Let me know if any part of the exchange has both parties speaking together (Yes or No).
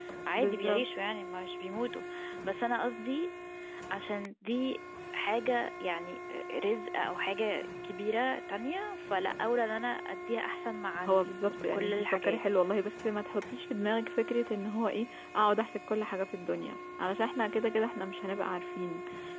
Yes